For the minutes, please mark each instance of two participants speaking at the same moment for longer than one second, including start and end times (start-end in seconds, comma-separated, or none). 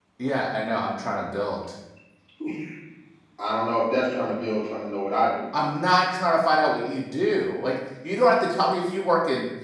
none